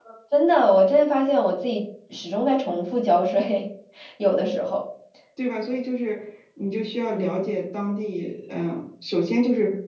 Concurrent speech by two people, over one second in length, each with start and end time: none

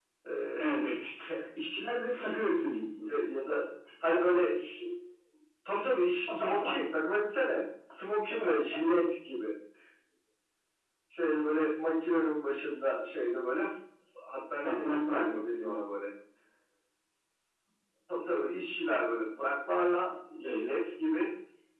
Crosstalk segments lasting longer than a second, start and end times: 14.6-15.8

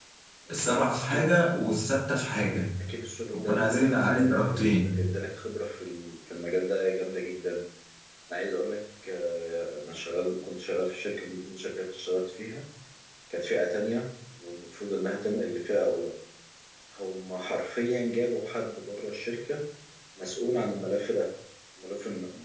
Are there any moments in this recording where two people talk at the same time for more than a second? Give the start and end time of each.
3.3-5.0

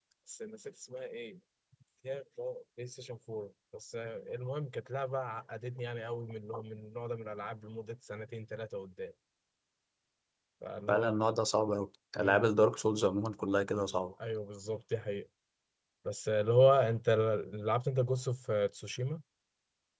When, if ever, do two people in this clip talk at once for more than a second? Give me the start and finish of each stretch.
none

